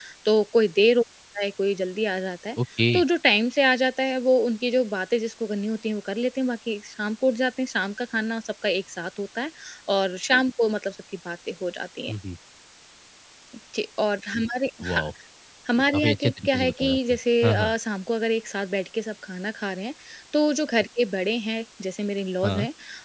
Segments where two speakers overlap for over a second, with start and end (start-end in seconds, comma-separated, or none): 15.9-17.7